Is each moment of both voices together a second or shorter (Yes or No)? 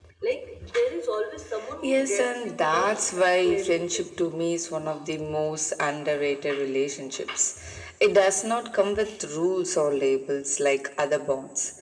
No